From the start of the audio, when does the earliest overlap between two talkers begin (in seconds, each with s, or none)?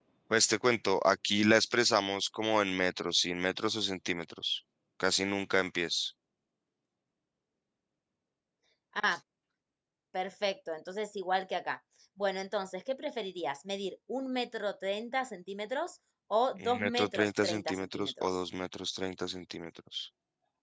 16.6 s